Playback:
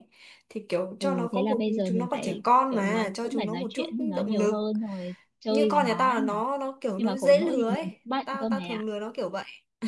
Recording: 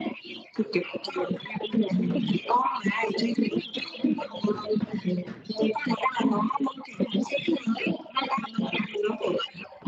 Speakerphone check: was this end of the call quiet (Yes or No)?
Yes